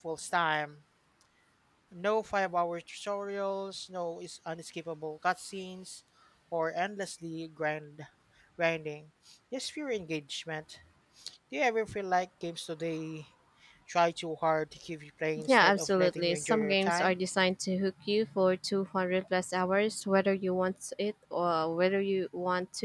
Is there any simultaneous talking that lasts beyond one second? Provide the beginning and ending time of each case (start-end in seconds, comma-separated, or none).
15.5-17.1